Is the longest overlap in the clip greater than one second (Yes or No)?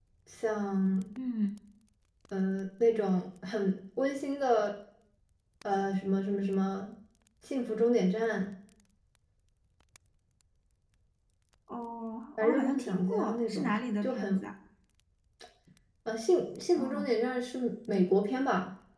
Yes